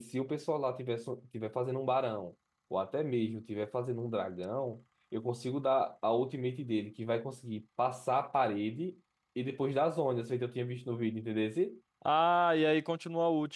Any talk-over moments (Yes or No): No